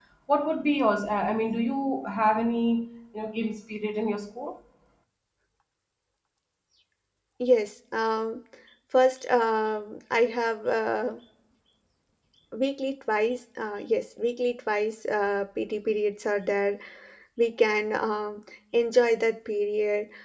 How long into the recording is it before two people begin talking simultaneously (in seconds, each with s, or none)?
none